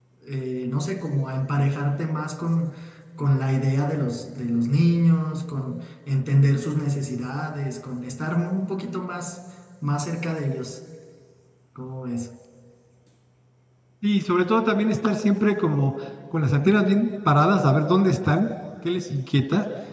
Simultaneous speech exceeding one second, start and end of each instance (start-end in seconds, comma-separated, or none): none